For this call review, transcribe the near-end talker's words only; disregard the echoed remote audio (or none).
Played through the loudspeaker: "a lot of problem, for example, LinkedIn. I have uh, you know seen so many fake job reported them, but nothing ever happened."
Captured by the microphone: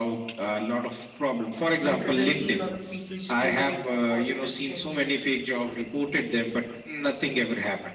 because I see a lot of people just using it for positive things,